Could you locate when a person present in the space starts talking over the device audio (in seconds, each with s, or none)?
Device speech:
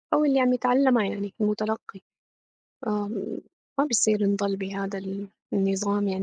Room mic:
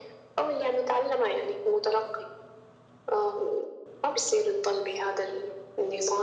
none